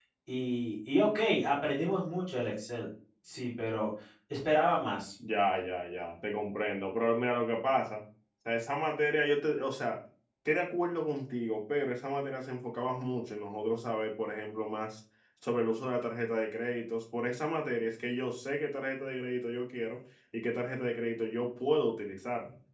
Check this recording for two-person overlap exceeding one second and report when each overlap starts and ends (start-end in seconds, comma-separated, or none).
none